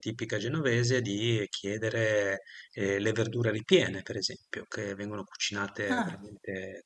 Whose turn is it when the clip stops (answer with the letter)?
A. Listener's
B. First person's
B